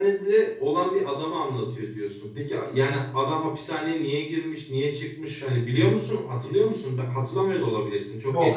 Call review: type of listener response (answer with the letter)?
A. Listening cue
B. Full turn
B